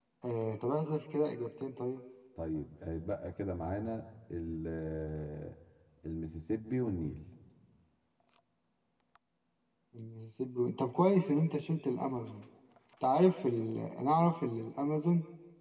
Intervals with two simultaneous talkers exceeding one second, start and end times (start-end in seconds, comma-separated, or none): none